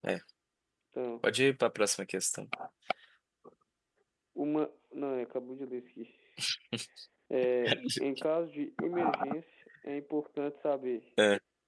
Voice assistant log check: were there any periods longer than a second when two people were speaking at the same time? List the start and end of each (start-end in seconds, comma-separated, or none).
none